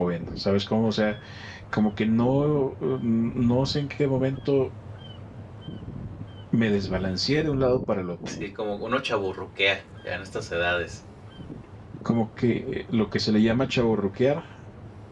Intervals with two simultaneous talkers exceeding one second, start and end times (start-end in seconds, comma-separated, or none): none